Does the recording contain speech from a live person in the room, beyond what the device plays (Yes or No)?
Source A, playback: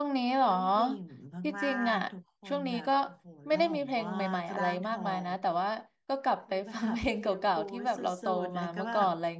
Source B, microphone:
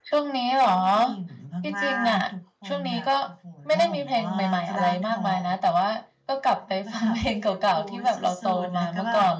No